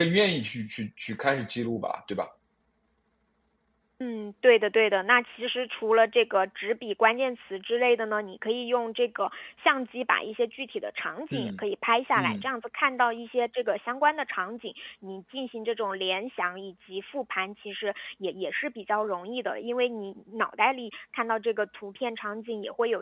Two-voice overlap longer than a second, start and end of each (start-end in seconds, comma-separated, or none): none